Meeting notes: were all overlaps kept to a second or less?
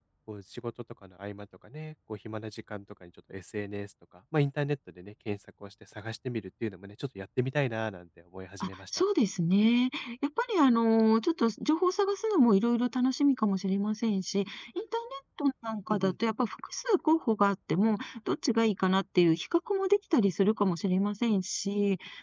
Yes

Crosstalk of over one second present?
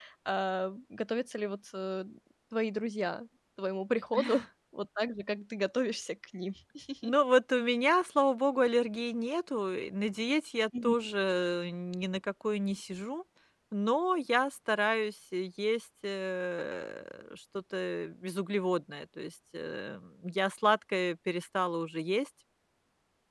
No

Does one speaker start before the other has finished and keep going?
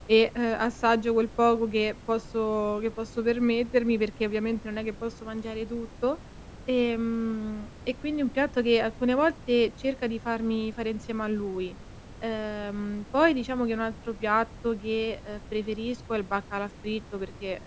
No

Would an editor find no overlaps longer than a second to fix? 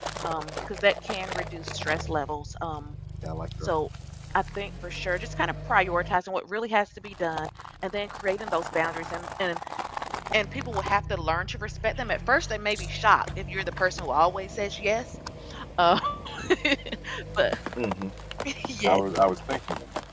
Yes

